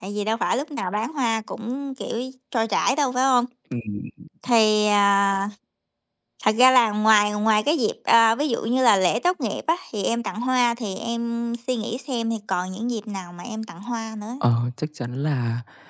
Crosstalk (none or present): none